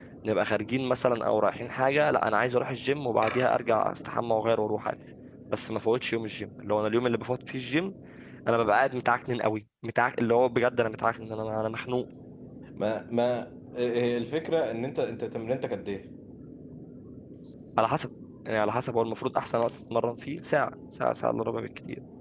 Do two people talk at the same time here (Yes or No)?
No